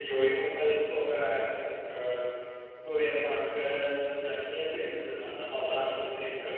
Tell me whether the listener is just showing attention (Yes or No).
Yes